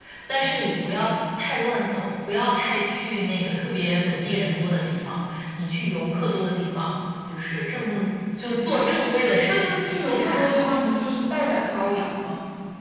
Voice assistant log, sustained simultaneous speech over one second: present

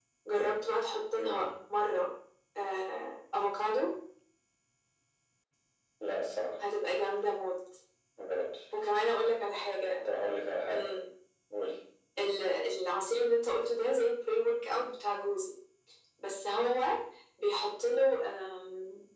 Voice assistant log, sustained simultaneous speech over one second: none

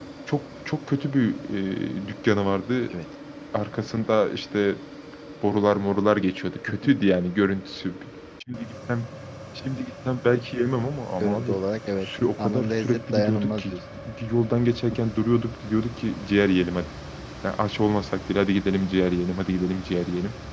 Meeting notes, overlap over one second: present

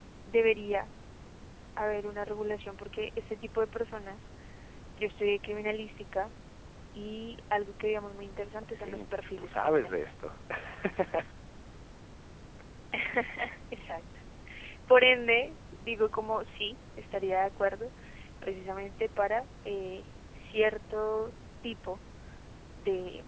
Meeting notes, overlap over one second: present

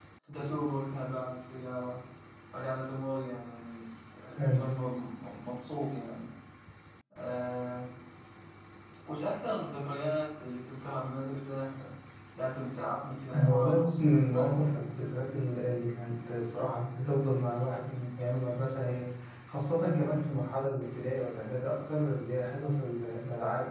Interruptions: present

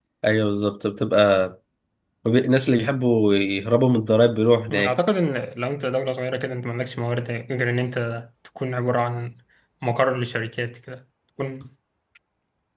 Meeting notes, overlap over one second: none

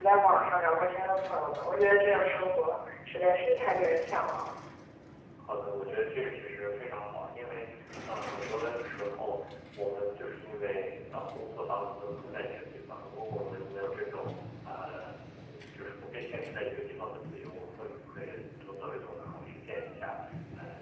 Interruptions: none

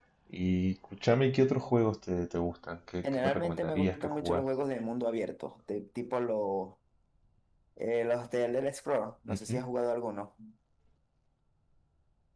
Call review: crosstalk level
present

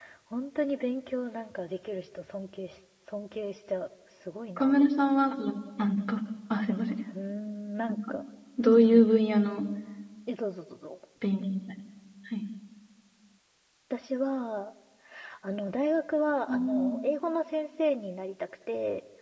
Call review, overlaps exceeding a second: none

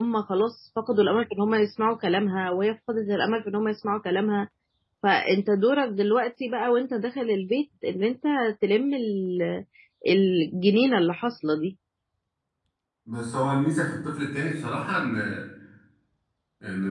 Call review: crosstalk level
none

